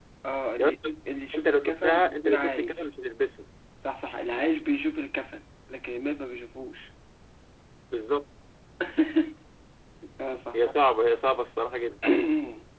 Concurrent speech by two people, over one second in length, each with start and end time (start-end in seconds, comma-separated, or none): 1.3-2.9